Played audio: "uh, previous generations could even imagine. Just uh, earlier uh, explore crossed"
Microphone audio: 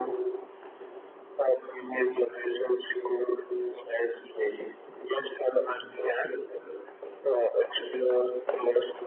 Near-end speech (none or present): none